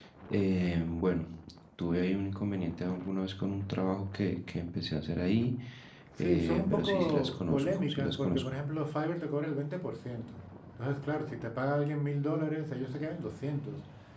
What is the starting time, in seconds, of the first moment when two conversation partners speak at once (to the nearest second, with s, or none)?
6 s